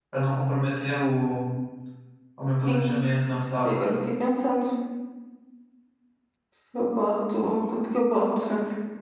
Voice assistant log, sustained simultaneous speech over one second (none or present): none